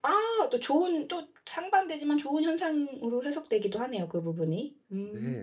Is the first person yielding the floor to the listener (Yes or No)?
Yes